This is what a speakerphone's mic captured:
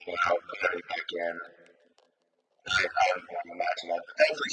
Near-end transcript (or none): none